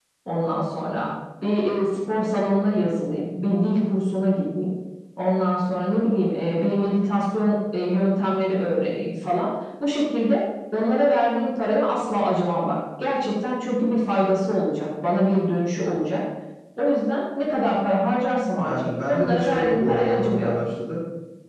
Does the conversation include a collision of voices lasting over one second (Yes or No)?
Yes